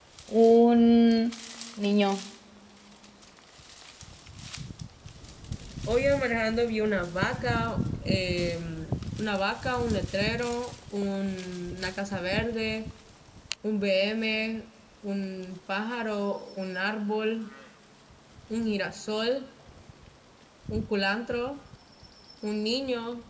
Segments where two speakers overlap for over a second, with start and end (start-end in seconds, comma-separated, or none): none